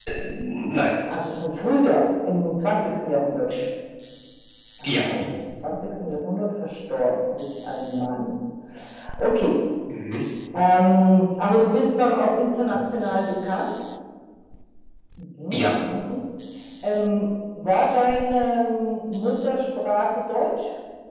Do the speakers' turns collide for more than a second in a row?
No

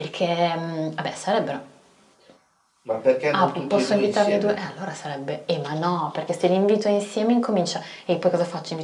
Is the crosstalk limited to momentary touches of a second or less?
No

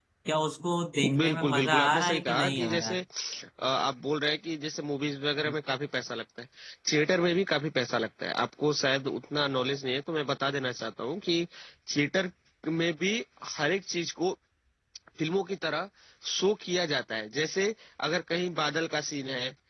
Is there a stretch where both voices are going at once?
Yes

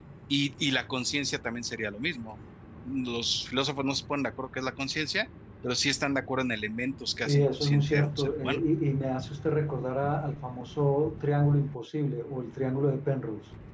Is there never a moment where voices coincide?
No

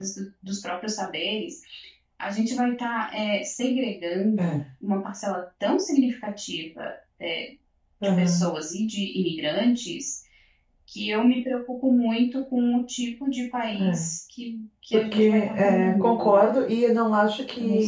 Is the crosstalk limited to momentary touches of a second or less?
No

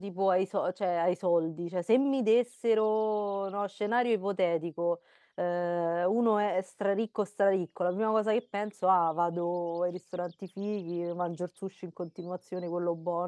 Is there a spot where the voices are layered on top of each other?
No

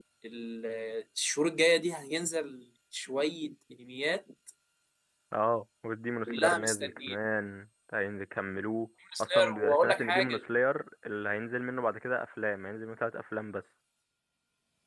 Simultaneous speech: Yes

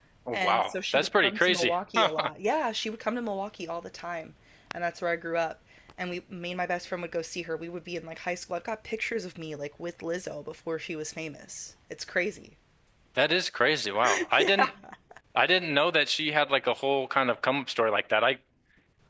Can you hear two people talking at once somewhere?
Yes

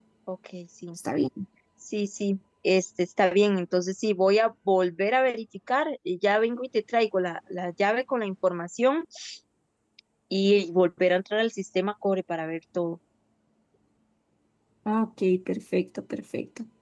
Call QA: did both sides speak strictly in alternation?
Yes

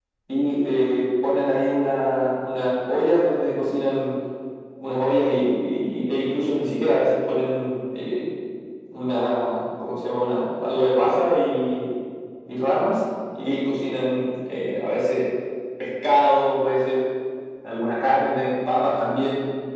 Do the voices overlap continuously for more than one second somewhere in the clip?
No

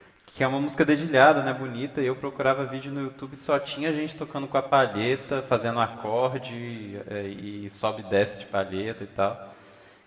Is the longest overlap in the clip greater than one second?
No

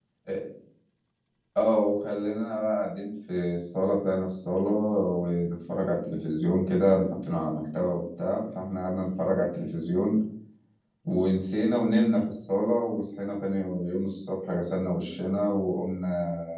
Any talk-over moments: No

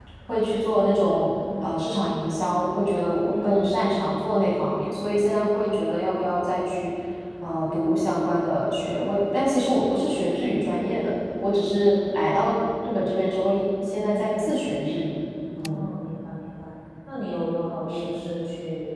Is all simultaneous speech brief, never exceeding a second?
Yes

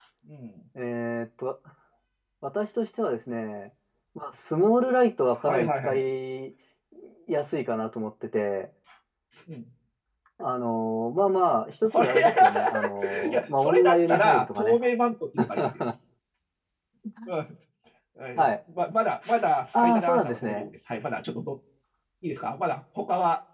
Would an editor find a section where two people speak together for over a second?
Yes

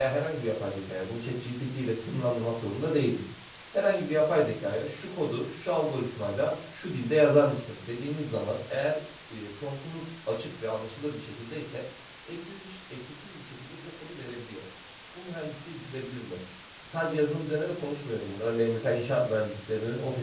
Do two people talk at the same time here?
No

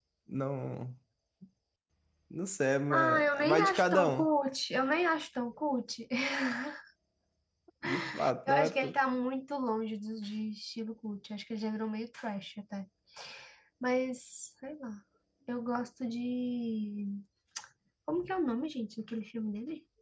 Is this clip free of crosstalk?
No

